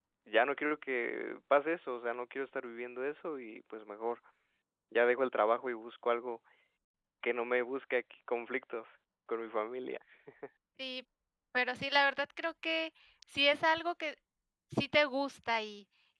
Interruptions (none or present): none